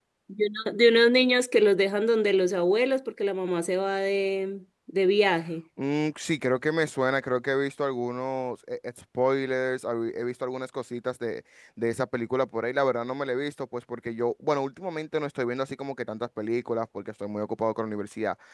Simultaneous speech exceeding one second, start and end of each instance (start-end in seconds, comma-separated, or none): none